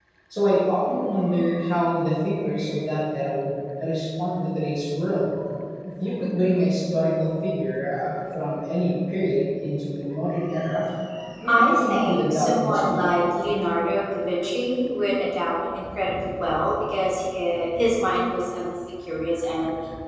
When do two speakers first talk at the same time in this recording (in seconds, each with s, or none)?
11.5 s